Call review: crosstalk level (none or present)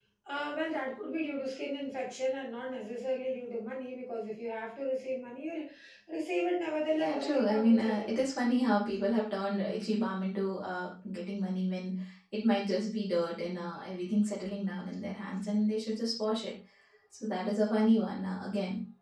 present